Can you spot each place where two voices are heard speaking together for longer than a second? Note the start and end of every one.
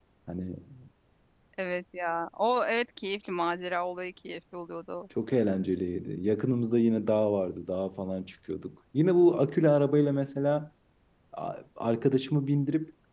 none

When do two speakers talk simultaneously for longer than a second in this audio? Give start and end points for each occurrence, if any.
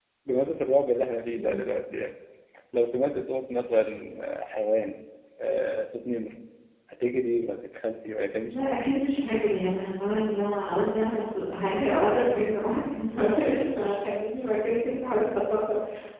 none

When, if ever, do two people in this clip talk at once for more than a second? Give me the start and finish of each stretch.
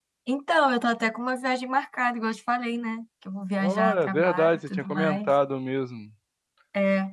3.6-5.3

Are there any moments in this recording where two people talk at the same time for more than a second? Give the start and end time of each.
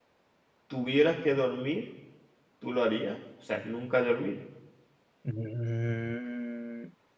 none

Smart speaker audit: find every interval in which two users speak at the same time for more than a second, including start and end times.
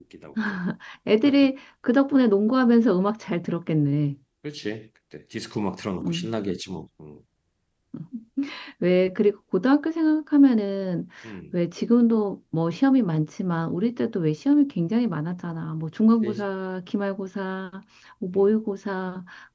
none

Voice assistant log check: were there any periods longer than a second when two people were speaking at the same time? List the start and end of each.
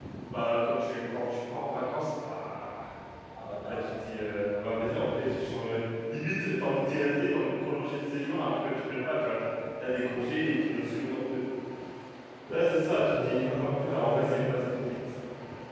13.1-14.5

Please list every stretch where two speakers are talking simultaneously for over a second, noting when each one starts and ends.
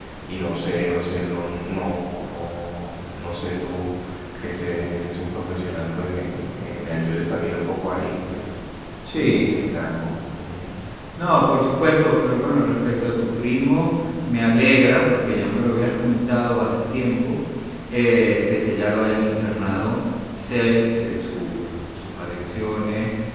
none

